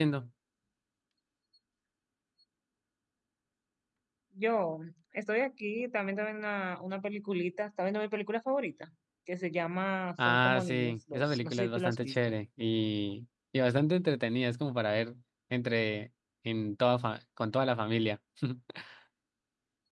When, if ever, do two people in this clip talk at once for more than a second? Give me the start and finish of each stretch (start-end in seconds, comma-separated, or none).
10.2-12.2